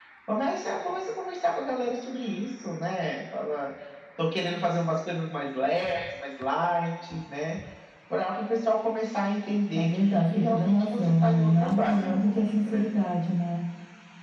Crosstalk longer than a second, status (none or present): present